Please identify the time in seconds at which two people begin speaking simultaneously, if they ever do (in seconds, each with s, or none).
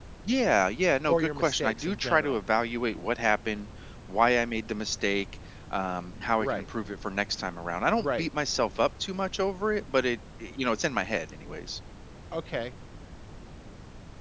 1.1 s